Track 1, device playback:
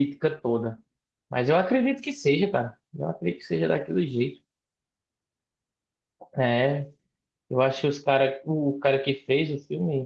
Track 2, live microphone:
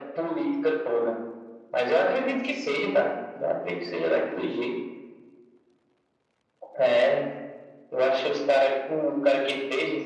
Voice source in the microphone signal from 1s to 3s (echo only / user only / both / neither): echo only